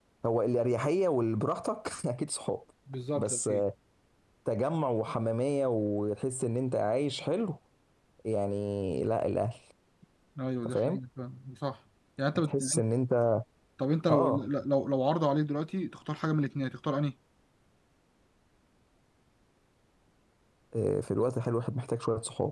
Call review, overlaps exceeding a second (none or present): none